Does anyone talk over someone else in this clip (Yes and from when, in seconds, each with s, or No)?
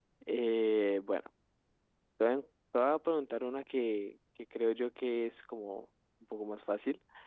No